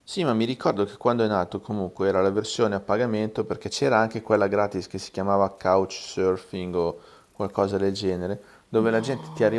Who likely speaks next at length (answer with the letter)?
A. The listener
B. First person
B